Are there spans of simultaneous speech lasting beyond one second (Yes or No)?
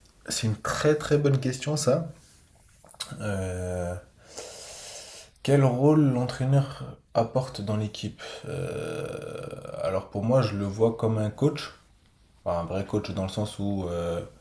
No